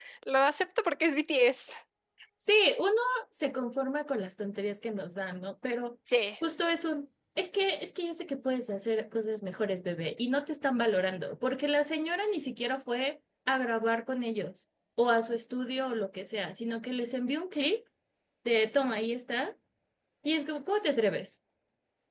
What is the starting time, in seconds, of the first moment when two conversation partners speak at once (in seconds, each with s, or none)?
none